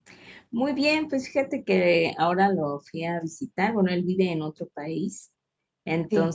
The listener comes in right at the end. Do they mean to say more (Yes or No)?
No